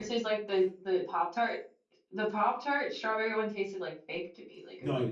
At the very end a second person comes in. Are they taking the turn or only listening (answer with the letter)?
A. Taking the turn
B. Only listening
A